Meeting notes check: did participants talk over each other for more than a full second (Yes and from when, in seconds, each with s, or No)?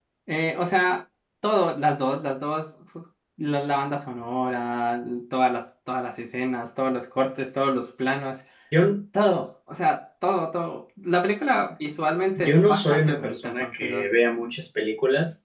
Yes, from 12.4 s